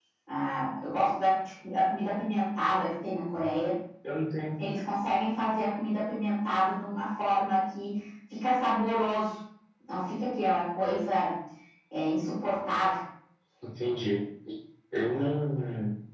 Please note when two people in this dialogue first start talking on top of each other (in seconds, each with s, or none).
none